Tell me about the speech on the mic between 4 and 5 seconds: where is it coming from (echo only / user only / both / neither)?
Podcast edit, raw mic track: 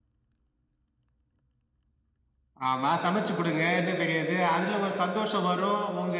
user only